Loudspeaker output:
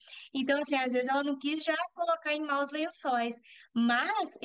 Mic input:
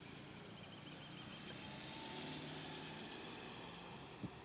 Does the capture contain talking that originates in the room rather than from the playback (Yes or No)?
No